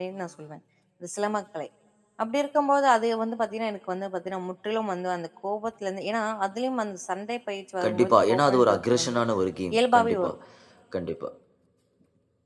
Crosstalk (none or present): present